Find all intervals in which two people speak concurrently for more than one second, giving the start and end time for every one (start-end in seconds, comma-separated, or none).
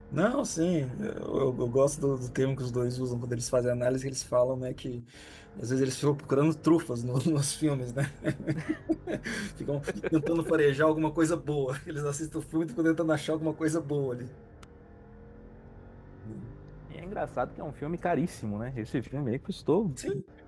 none